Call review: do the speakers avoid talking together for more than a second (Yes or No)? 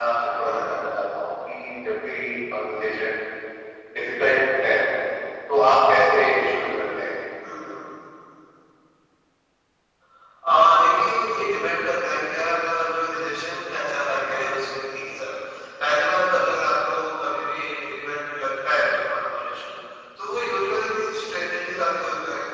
Yes